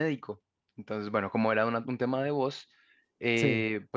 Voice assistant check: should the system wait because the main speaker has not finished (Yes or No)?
Yes